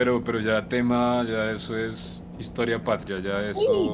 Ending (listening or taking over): taking over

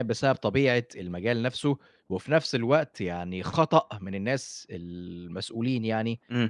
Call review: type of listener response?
listening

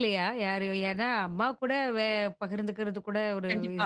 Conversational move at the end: taking over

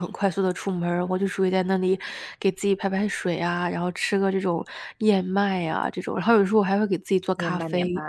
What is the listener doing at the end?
taking over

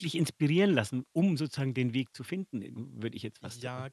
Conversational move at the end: taking over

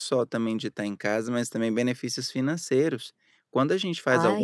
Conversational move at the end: listening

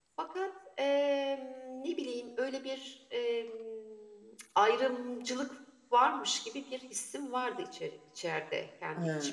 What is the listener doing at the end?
taking over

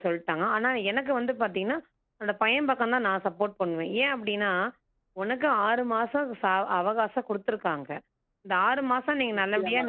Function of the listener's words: listening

